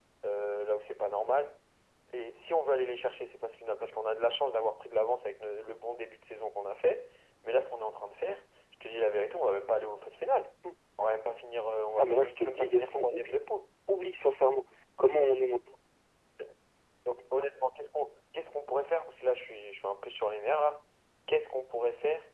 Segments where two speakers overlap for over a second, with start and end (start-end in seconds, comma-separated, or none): 12.0-13.4